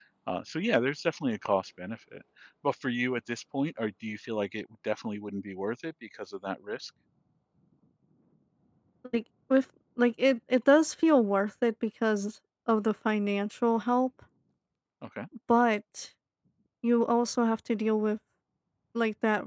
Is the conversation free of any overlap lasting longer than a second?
Yes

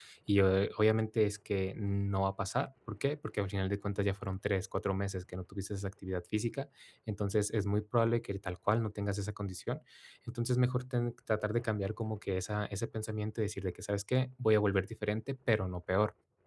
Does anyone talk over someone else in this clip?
No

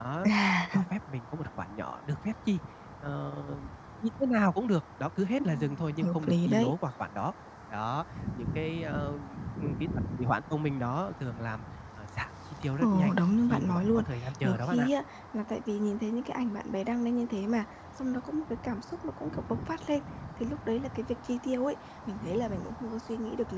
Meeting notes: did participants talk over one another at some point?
Yes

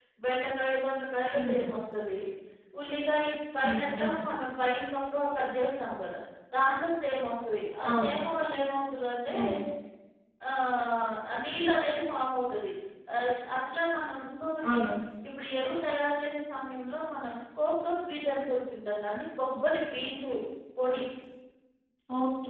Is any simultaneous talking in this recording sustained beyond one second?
No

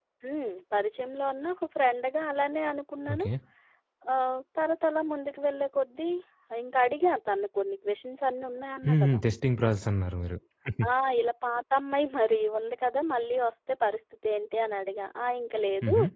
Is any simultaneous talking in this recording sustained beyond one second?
No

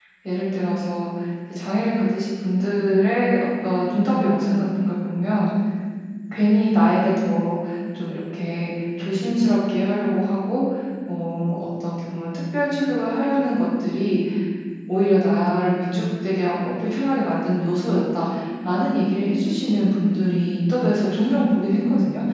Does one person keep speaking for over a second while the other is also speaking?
No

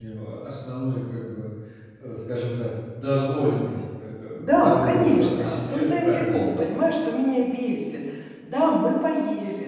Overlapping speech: Yes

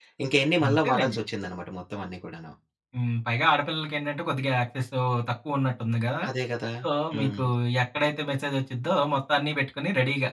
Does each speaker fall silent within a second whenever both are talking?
Yes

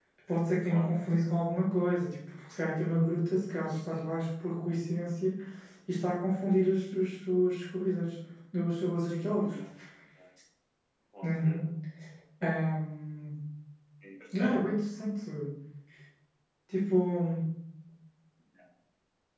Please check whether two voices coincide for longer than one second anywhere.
No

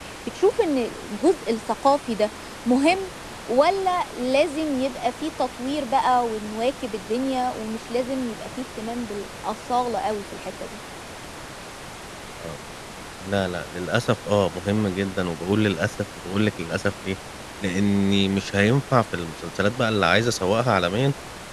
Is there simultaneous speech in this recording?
No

